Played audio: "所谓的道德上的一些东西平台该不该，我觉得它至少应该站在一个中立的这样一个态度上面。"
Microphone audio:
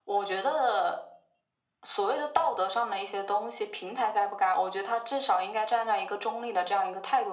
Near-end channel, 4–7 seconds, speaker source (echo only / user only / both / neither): echo only